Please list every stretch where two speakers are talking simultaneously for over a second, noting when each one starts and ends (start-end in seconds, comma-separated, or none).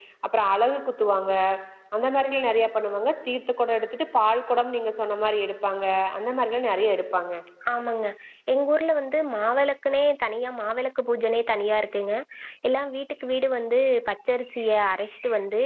none